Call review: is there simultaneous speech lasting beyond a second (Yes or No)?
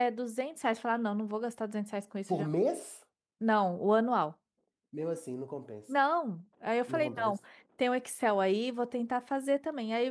No